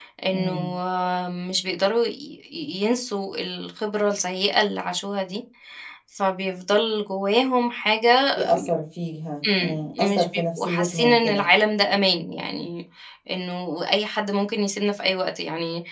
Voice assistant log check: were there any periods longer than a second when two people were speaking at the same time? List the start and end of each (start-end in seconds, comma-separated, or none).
9.5-11.5